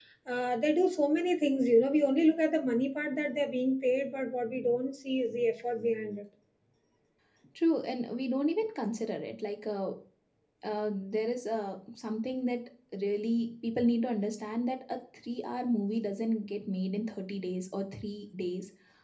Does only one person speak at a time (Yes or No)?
Yes